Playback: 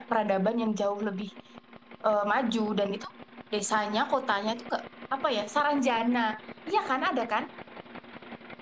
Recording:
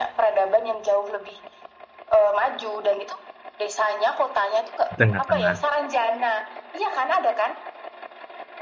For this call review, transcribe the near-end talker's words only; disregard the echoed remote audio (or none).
tengah-tengah